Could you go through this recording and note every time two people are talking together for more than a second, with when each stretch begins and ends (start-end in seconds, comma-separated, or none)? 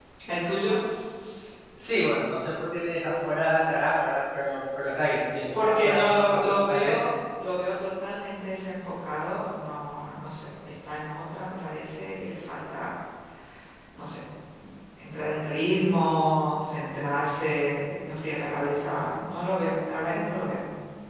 5.5-7.0